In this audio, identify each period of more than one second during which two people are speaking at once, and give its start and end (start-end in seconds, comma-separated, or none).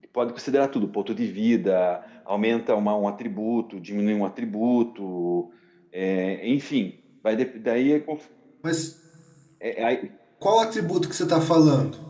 none